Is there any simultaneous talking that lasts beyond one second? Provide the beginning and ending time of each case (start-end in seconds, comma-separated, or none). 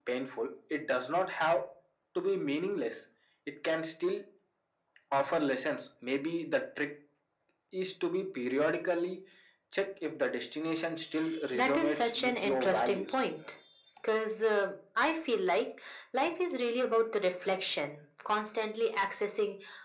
11.5-13.2